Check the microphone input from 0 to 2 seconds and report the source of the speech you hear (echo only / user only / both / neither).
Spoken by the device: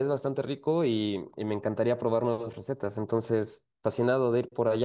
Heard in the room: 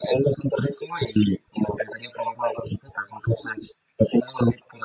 echo only